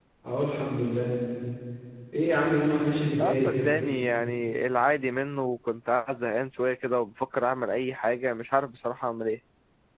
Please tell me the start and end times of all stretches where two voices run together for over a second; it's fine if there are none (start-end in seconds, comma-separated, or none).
none